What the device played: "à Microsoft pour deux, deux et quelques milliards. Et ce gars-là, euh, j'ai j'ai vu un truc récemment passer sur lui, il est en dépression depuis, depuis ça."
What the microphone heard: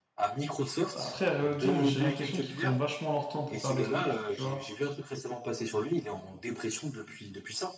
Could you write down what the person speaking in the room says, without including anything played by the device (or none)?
Bah, après, Riot Games, j'ai l'impression qu'ils prennent vachement leur temps pour faire des trucs, tu vois.